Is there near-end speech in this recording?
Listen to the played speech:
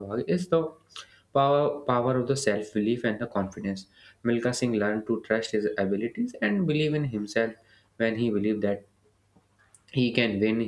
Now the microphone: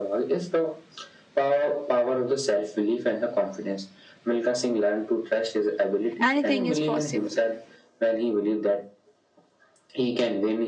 Yes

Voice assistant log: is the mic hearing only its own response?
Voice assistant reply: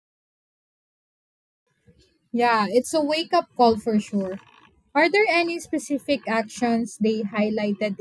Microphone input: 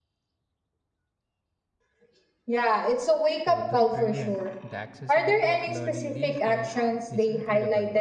No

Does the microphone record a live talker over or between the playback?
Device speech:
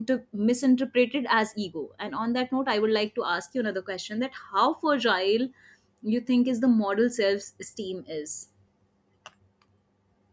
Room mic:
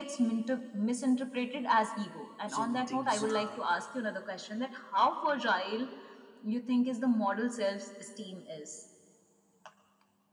Yes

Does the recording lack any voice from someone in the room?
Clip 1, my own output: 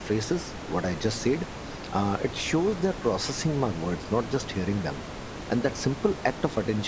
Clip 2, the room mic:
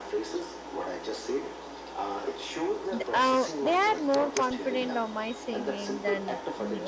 No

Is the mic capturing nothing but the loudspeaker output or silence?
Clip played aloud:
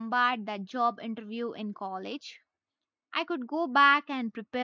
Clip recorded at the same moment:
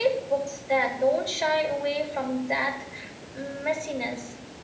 No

